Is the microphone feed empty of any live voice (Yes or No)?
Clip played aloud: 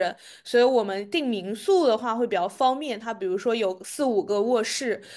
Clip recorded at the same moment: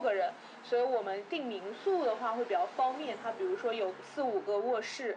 Yes